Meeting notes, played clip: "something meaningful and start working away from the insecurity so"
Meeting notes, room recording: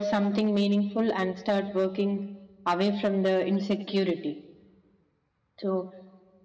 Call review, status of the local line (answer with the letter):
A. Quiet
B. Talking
A